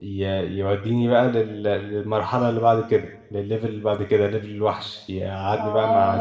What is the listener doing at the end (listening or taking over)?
listening